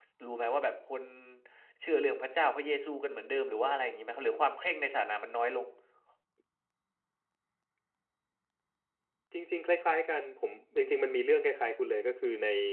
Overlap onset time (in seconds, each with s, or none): none